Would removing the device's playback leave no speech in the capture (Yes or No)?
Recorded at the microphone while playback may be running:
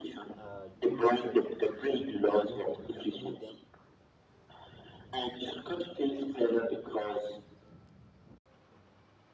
No